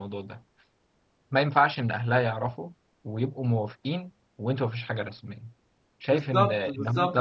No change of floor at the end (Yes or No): No